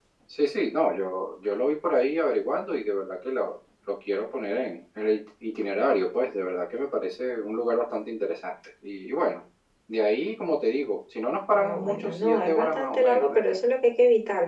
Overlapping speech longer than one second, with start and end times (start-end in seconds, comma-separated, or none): 11.5-13.4